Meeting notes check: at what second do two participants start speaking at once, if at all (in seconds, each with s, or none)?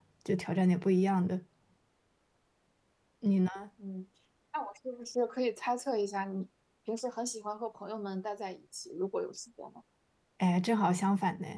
none